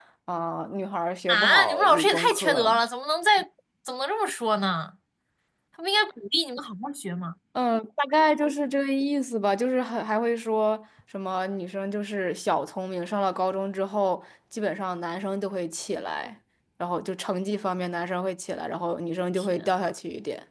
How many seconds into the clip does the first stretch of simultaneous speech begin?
1.3 s

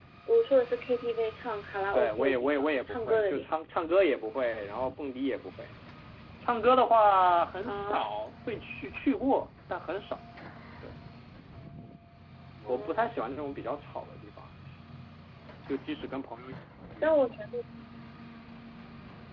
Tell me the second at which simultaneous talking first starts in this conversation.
1.9 s

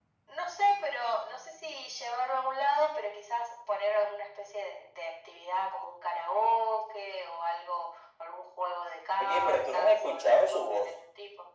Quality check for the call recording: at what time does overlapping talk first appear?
9.2 s

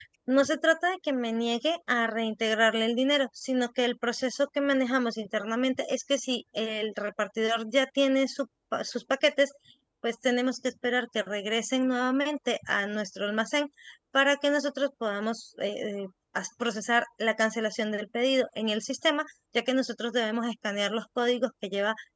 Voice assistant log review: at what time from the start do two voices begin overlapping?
none

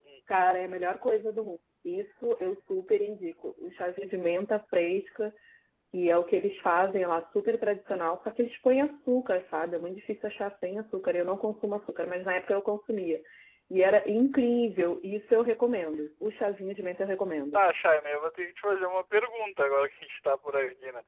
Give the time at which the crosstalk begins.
none

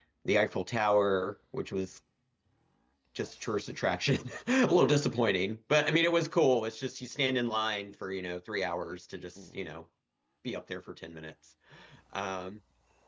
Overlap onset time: none

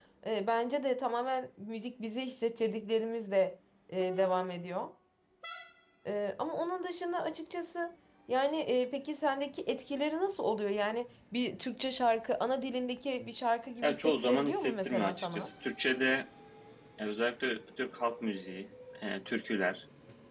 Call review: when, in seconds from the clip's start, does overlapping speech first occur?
13.8 s

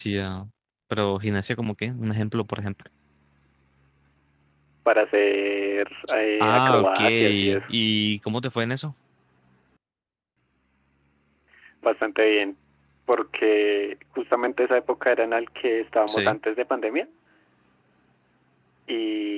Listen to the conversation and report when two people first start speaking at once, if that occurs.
6.4 s

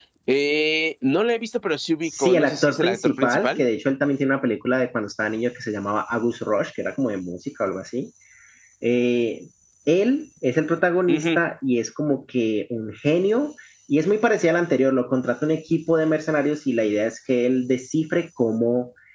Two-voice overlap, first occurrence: 2.0 s

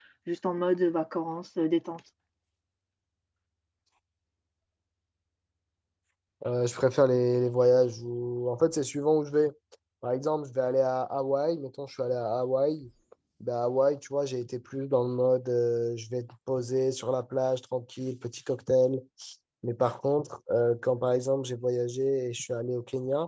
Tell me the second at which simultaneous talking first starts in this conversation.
none

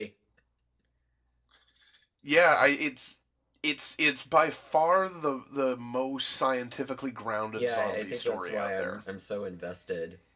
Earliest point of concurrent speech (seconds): 7.6 s

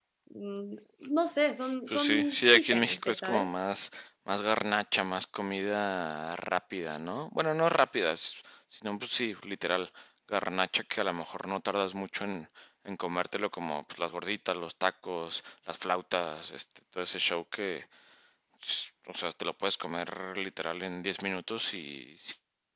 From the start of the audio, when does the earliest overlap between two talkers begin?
1.9 s

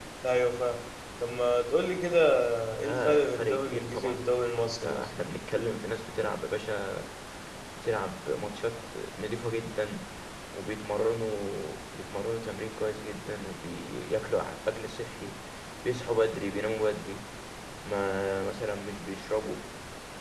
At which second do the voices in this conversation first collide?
2.8 s

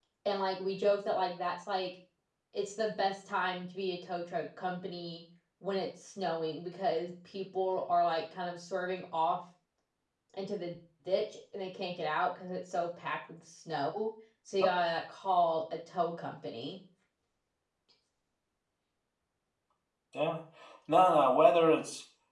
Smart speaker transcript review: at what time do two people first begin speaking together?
none

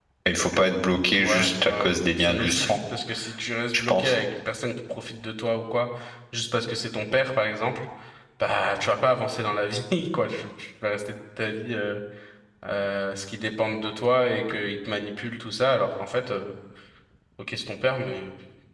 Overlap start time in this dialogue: 1.2 s

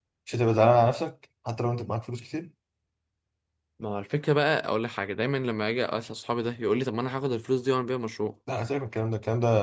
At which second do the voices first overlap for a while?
none

